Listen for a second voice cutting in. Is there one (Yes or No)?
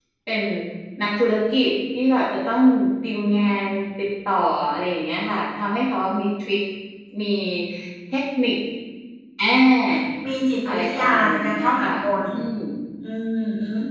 Yes